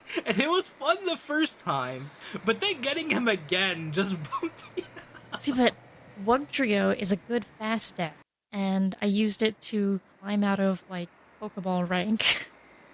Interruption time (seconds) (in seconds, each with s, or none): none